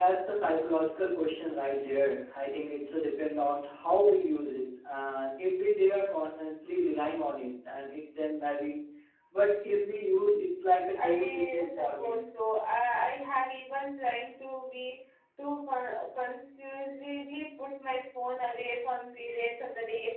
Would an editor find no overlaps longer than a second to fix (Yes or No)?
No